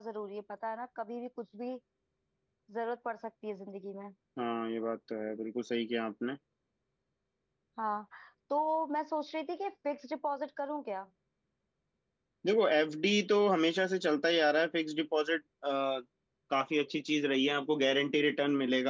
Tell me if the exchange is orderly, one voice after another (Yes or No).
Yes